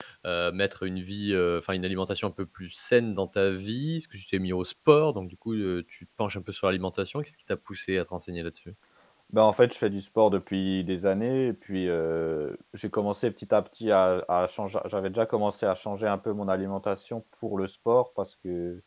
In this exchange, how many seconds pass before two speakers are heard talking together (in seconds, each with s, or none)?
none